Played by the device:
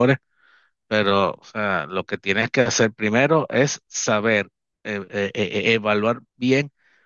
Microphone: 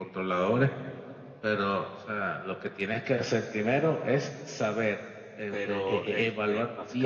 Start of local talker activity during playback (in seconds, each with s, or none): 5.5 s